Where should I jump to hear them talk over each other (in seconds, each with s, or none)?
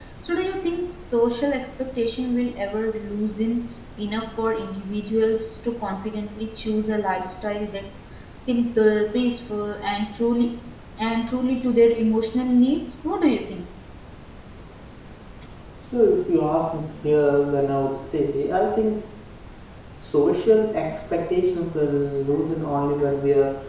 none